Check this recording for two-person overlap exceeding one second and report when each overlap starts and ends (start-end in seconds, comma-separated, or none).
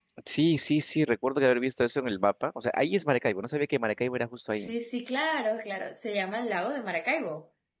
none